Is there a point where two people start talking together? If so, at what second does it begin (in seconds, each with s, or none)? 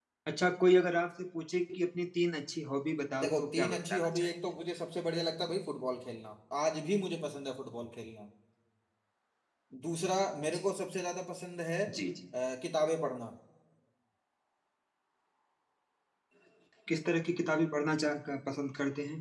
3.2 s